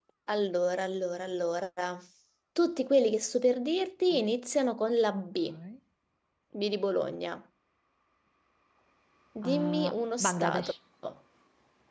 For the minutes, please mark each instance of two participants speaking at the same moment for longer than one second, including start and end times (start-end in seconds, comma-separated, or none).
9.4-10.7